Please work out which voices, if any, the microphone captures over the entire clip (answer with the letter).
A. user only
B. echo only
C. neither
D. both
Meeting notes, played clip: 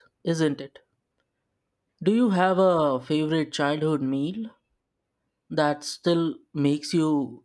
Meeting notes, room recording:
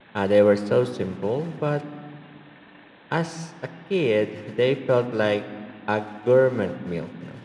A